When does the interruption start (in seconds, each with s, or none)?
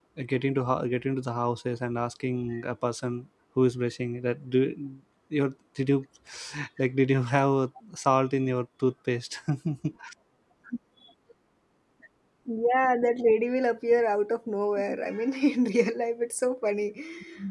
none